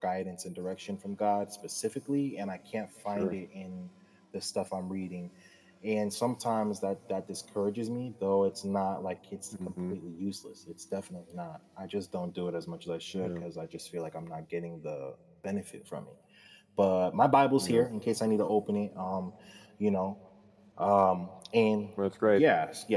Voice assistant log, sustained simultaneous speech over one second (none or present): none